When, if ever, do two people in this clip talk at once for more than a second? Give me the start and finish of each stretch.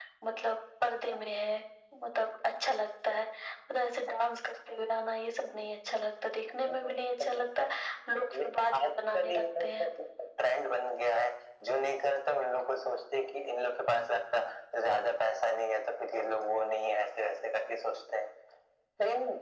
8.4-9.8

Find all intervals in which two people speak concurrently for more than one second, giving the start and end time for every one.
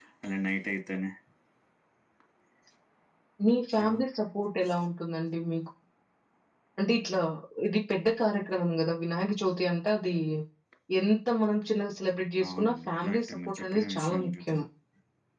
12.5-14.6

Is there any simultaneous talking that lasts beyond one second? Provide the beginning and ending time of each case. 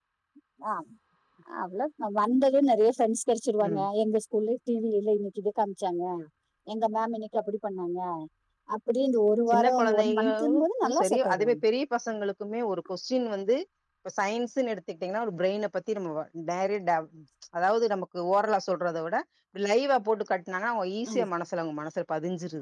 9.5-11.7

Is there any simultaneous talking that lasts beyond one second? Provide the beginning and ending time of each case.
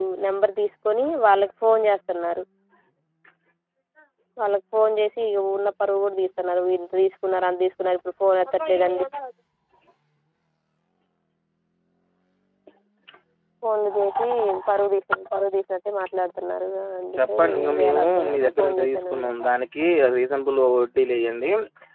17.2-19.3

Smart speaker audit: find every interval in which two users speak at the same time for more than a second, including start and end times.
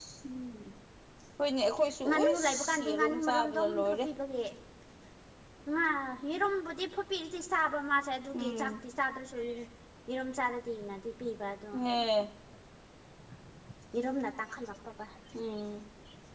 2.1-4.0

